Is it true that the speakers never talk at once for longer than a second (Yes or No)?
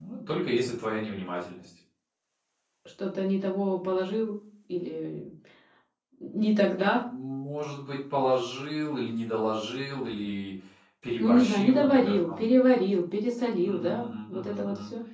No